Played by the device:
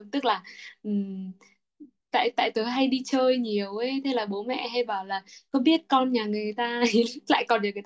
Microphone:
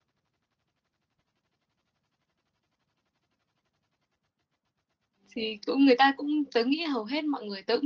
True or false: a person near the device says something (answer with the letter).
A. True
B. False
A